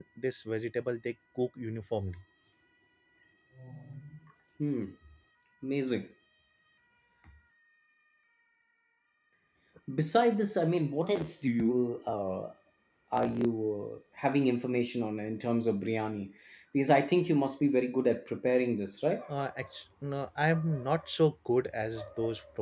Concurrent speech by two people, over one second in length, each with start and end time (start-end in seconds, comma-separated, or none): none